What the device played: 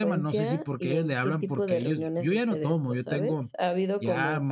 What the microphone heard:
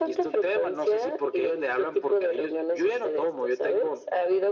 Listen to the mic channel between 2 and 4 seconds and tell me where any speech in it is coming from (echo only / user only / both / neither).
echo only